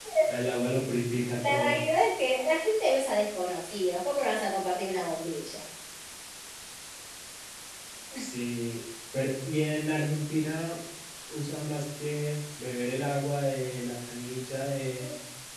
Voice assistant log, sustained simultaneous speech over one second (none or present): none